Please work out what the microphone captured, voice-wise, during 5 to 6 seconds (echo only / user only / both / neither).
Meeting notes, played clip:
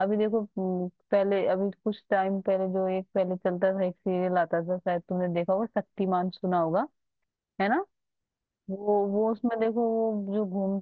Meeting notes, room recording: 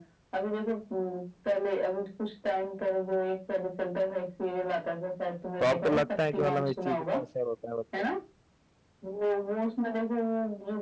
both